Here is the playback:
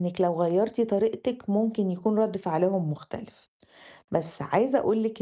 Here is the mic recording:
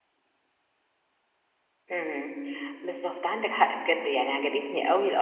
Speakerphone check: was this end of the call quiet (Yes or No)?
No